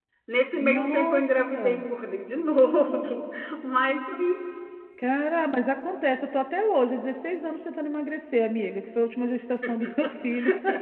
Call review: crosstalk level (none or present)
present